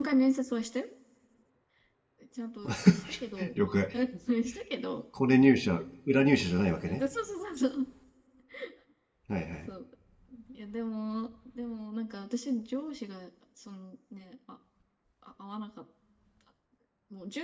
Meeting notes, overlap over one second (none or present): none